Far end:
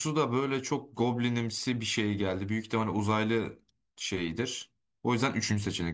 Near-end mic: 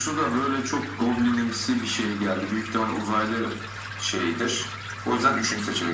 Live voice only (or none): none